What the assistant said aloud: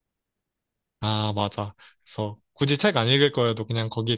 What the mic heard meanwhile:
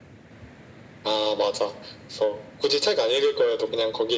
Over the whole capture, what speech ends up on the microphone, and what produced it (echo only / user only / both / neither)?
echo only